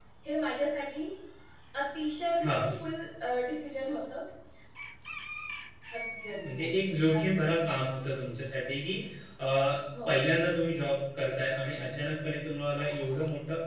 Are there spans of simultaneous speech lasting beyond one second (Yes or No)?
No